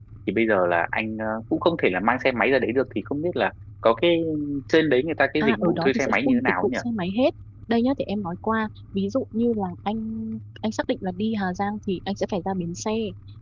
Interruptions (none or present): present